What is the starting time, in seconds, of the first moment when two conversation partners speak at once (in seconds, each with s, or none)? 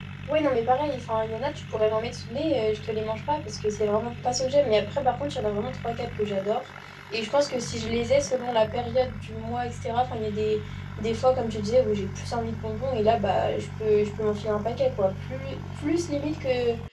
none